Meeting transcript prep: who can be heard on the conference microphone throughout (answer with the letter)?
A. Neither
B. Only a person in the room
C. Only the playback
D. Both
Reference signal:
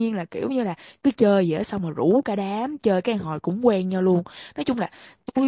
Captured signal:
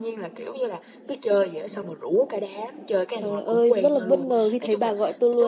D